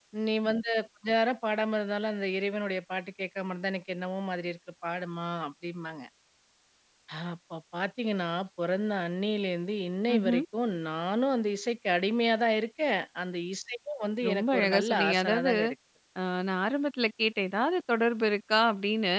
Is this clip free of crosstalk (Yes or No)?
No